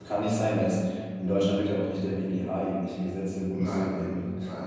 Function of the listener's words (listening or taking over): taking over